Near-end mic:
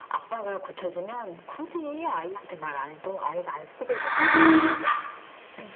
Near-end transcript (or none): 아,